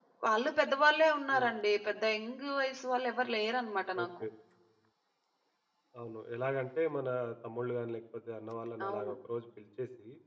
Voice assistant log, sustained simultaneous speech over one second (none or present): none